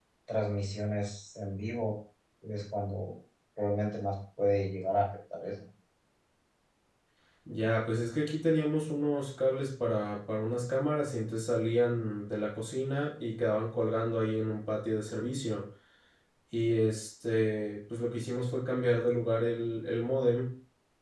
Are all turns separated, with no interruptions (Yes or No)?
Yes